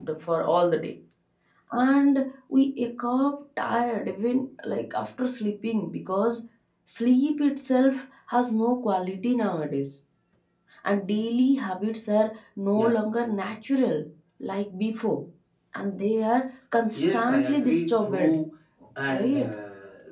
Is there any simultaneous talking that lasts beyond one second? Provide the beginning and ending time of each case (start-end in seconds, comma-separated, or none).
16.9-18.3